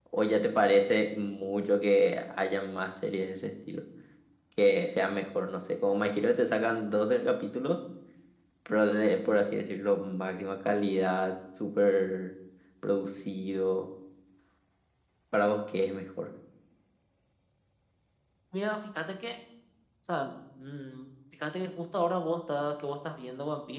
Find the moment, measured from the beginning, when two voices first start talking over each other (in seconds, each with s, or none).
none